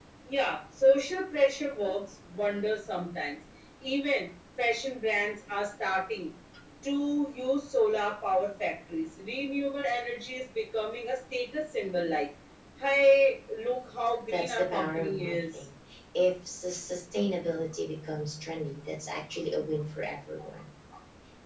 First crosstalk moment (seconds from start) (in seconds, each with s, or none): 14.3 s